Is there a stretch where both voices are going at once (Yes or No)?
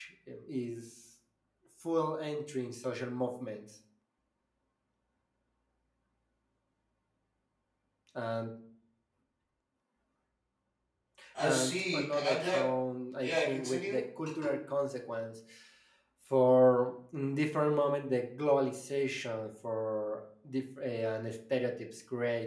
Yes